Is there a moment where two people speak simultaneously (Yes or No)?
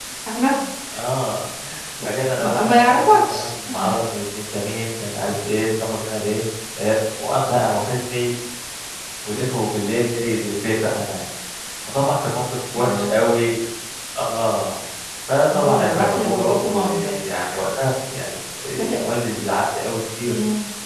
Yes